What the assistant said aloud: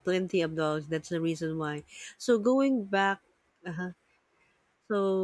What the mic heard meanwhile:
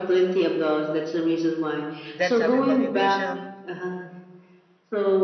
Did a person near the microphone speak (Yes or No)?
Yes